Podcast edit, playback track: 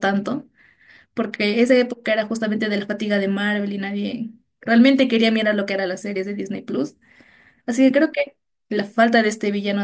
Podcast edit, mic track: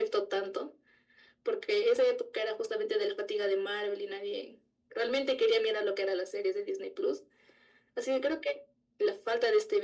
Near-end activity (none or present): none